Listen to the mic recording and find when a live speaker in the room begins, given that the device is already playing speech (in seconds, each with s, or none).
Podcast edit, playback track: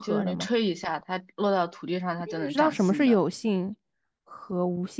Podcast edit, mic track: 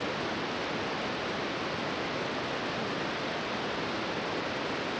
none